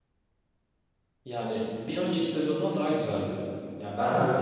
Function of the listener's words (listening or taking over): listening